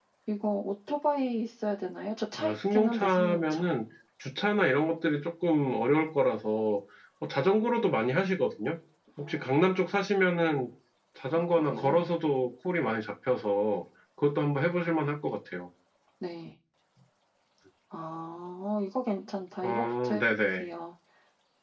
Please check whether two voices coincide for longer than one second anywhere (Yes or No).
Yes